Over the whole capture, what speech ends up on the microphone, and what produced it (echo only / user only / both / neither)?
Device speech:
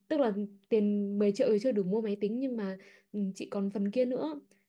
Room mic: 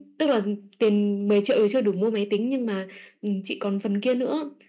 echo only